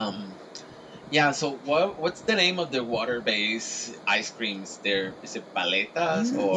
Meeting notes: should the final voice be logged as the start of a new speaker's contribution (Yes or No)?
Yes